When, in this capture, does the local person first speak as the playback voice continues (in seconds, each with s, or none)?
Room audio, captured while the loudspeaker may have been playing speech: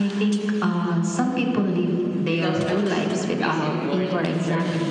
2.3 s